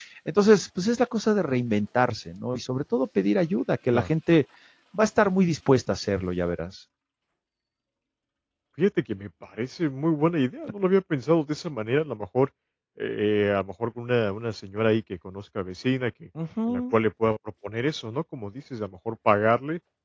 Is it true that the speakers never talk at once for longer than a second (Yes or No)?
Yes